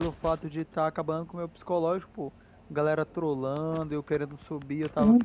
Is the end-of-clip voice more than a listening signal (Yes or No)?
Yes